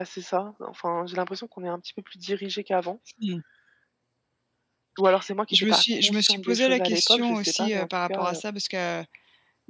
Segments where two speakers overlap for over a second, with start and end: 5.5-8.4

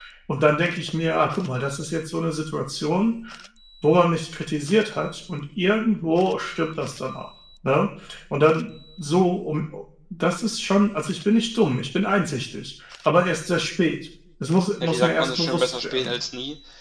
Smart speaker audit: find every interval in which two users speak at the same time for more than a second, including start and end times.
14.8-16.1

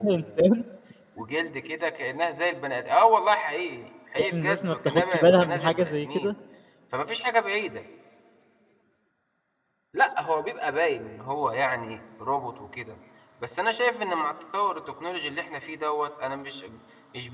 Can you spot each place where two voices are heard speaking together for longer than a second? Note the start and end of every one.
4.2-6.3

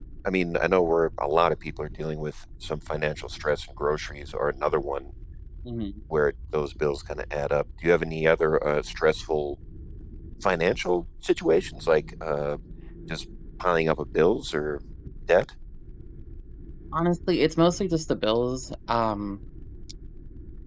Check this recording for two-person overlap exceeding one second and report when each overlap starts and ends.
none

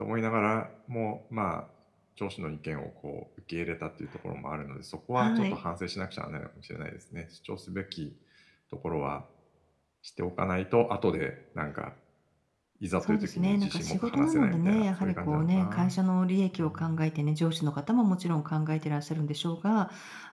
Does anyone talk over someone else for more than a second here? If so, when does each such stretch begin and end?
13.0-15.9

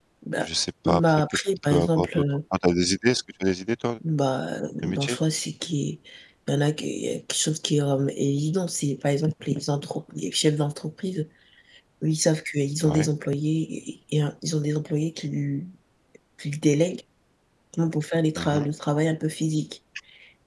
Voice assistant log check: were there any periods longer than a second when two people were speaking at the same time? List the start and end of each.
0.8-2.2

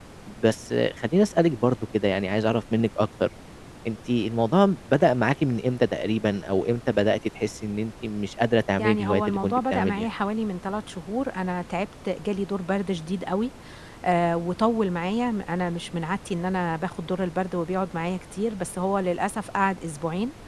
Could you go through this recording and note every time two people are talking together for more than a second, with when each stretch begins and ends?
8.8-10.1

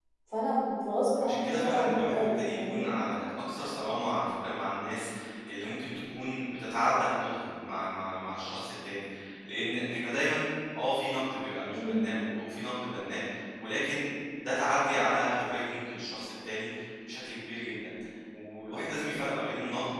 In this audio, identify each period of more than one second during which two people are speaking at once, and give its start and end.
1.2-2.9

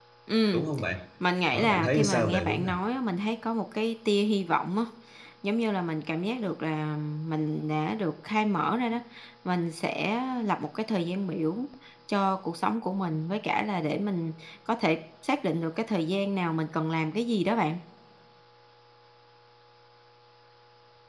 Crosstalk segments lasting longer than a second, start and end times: 1.5-2.8

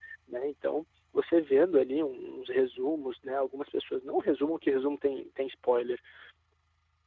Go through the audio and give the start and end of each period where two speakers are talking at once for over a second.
none

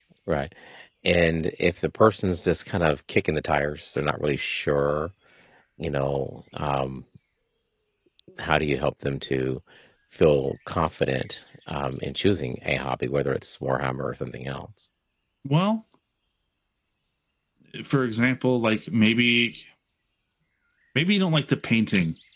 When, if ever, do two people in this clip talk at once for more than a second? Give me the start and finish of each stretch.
none

